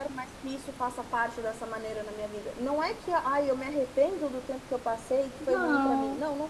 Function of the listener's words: listening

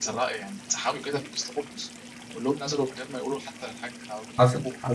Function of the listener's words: taking over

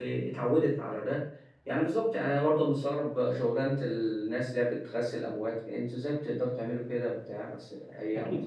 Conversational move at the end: taking over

